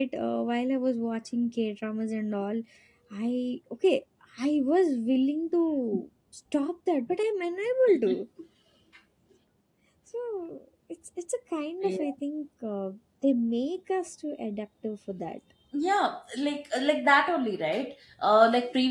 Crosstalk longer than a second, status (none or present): none